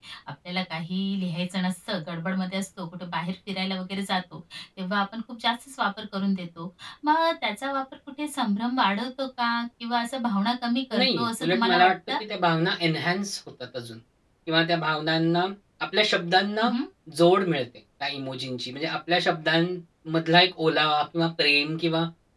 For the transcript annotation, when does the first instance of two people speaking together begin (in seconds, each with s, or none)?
10.9 s